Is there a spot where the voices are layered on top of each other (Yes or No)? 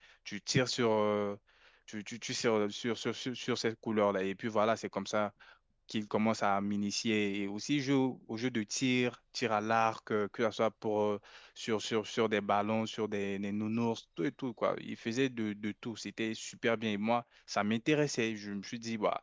No